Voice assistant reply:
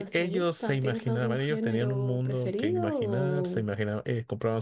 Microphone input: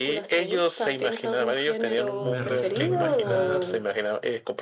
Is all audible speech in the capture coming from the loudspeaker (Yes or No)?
No